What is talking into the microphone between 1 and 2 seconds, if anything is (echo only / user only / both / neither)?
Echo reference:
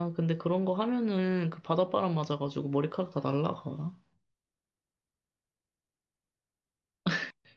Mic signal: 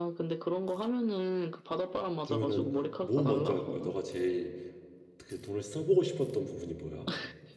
echo only